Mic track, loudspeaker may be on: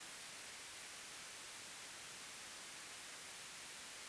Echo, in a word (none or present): none